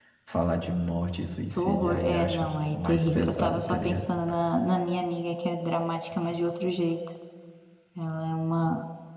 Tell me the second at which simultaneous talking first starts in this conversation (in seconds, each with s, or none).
1.5 s